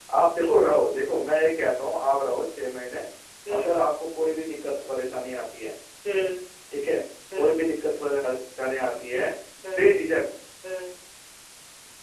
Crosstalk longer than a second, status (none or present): none